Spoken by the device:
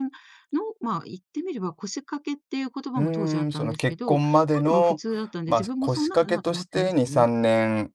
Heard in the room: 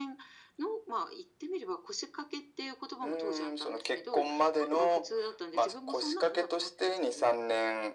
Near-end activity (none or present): none